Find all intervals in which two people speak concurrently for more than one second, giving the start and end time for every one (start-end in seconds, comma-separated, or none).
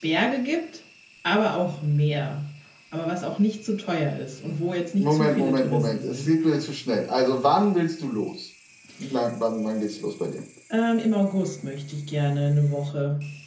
5.0-6.3